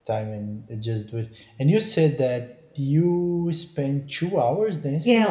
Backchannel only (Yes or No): No